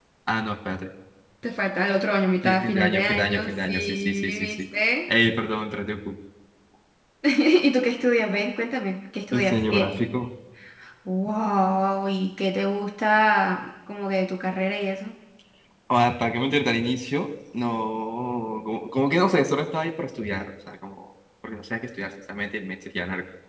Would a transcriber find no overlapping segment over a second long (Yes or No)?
No